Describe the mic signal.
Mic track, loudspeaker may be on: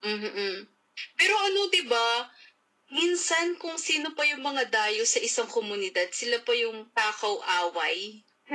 echo only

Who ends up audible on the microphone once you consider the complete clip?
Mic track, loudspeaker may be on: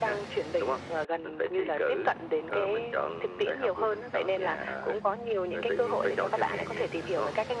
echo only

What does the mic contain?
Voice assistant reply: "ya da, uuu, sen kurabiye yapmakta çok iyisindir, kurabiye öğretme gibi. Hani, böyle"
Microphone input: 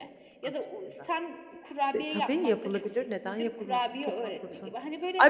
both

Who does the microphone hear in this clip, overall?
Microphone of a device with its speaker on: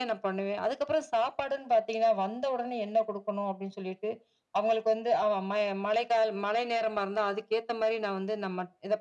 echo only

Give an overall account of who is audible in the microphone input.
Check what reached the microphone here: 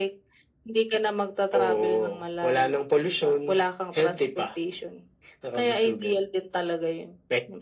echo only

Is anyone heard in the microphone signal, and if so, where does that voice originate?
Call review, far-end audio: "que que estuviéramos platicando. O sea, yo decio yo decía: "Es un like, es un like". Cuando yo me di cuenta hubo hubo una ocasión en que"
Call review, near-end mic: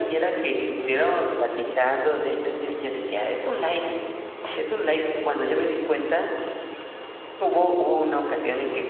echo only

